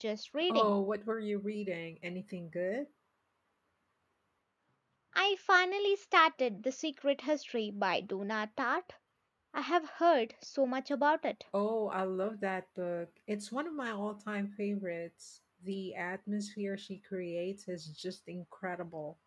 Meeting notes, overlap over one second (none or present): none